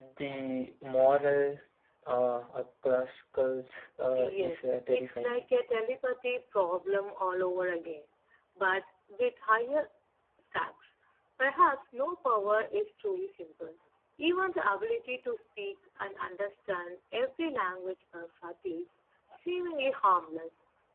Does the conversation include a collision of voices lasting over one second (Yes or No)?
Yes